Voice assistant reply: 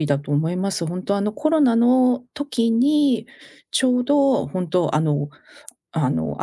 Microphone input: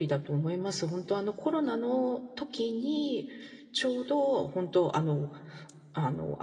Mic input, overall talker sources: echo only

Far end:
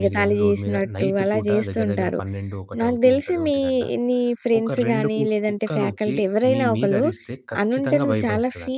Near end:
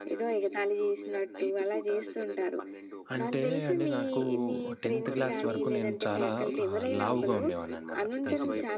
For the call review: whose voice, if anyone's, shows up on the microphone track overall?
both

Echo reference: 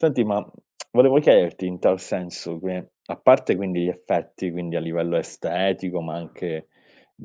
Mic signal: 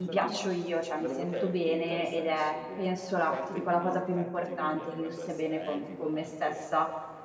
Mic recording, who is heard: both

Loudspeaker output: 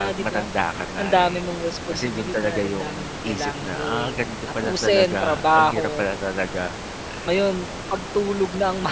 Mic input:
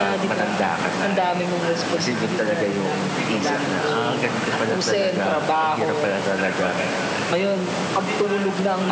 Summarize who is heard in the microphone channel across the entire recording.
both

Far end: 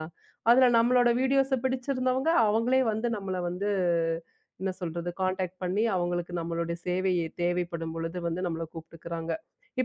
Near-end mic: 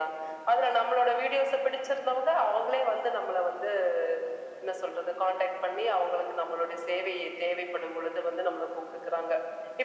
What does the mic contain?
echo only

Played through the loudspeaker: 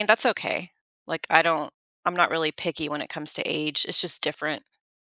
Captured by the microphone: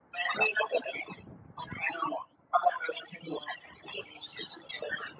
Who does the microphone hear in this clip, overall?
echo only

